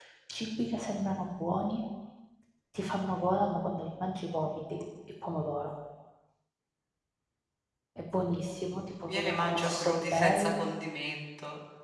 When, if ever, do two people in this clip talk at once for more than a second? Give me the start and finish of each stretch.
9.1-10.6

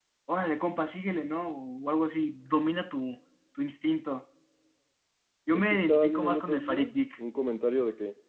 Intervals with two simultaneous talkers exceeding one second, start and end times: 5.5-6.9

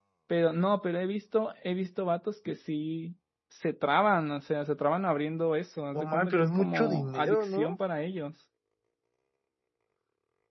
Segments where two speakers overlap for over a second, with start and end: 5.9-7.8

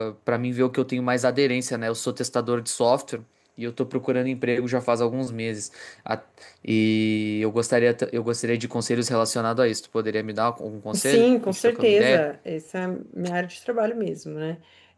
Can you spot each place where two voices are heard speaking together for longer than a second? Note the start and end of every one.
10.9-12.2

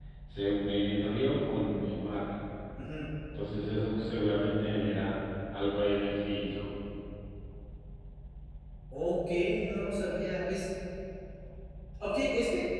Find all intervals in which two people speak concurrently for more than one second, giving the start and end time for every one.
none

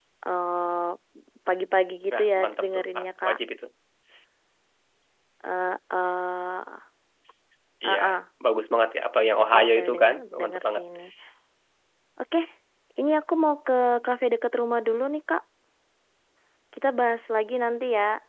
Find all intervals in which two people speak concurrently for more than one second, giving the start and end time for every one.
2.1-3.4, 9.2-10.8

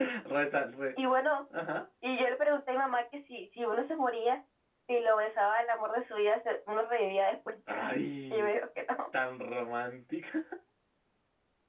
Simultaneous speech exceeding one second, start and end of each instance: none

